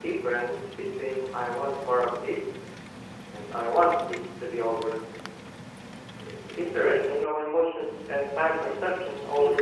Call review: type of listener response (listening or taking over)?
taking over